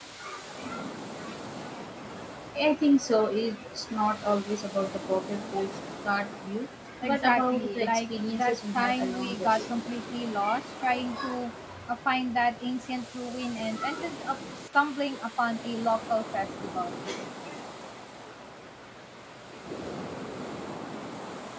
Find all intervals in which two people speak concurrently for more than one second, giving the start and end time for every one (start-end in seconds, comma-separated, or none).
7.0-9.6